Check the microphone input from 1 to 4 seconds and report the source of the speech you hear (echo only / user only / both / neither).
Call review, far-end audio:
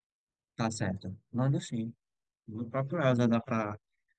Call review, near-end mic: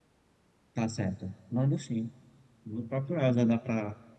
echo only